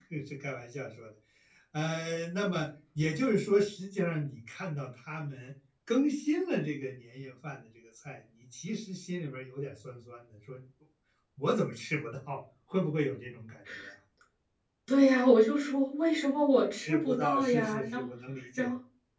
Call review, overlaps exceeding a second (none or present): present